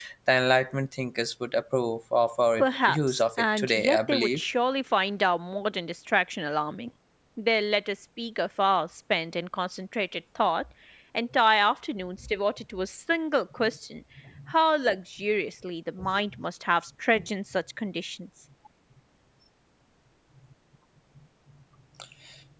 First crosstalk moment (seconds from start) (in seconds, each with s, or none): 2.6 s